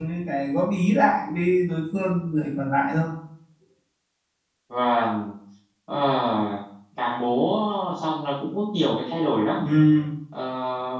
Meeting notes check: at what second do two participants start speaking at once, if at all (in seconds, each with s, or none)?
none